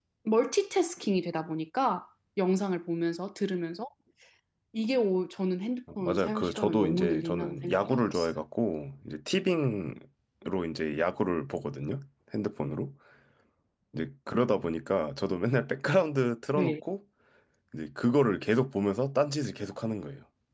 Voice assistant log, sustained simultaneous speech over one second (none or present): present